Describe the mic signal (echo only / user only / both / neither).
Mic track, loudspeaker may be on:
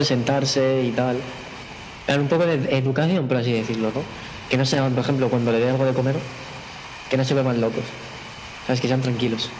echo only